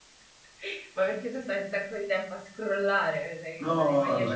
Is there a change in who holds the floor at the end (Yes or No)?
Yes